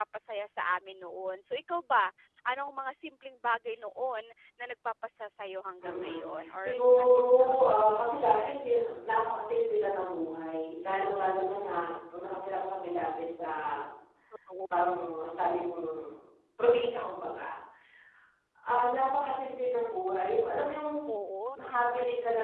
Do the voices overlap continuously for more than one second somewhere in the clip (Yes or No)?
Yes